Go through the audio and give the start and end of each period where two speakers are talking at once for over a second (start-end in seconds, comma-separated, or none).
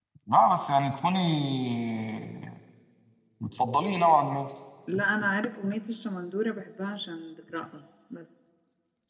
none